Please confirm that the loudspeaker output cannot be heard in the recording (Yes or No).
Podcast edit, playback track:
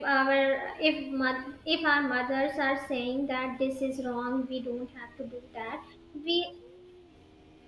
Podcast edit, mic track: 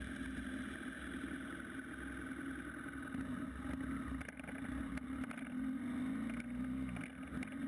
Yes